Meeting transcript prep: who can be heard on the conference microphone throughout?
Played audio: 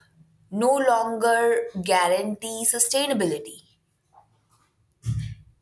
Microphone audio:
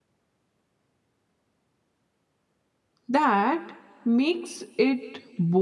user only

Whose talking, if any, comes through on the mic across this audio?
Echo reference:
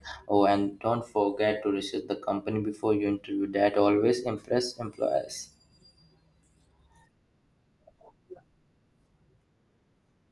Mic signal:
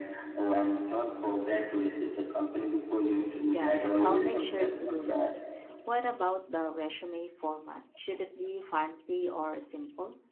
both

